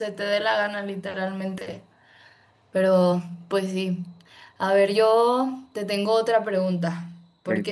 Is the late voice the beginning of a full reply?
No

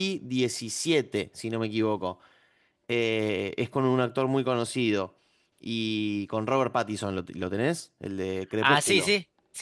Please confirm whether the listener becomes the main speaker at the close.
Yes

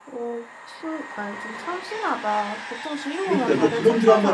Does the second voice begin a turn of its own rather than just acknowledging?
Yes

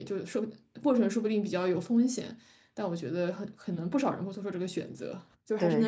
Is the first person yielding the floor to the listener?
Yes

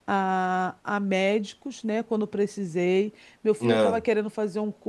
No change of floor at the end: Yes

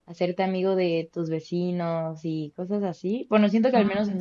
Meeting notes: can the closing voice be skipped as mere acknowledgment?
Yes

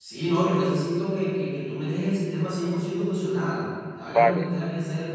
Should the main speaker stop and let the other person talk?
No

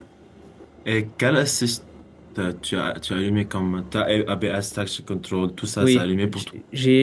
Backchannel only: No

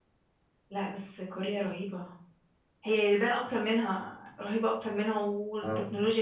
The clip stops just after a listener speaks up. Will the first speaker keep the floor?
Yes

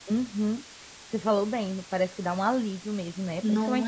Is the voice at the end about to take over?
No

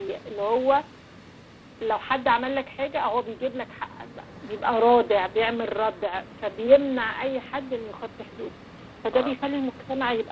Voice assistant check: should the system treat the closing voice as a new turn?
No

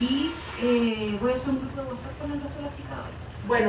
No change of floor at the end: No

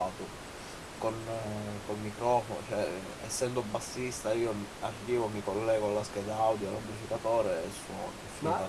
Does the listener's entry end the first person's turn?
Yes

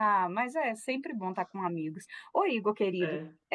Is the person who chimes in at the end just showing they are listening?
Yes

